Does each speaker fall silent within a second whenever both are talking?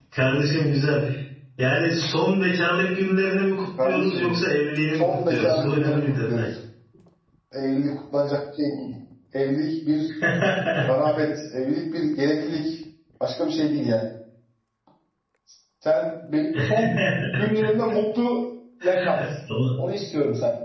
No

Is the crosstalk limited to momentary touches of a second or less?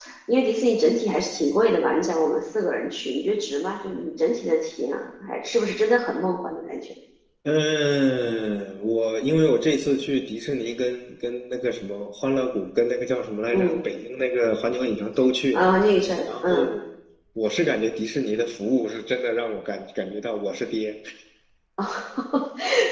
Yes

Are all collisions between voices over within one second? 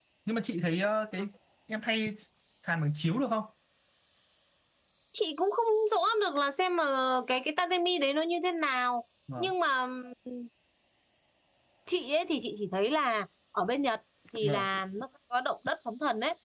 Yes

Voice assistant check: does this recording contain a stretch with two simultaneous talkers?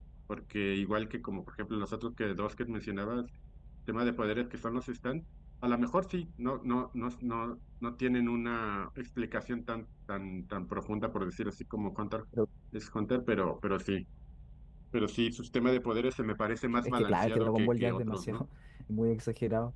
Yes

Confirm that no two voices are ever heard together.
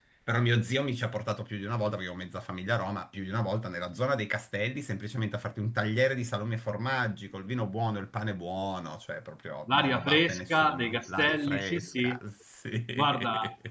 No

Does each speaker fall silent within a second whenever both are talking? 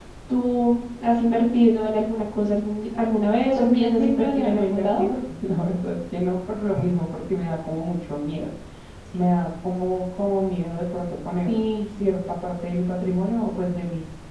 No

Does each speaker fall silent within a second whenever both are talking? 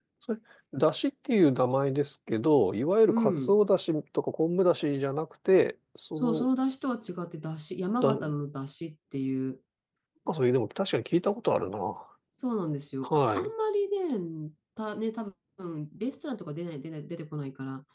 Yes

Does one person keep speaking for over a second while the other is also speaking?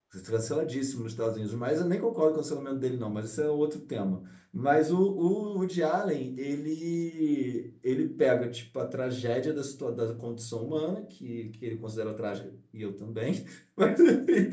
No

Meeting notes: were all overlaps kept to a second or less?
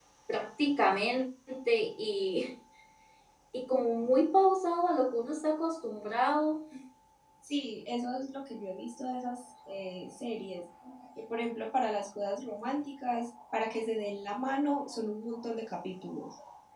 Yes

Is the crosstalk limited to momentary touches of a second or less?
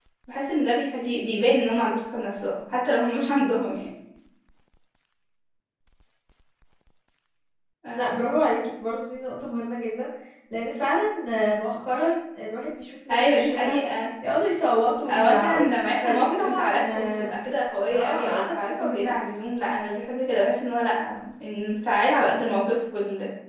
No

